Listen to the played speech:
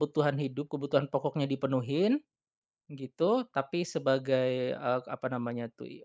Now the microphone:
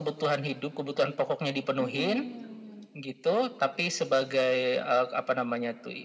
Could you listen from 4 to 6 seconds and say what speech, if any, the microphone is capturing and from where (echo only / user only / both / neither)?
echo only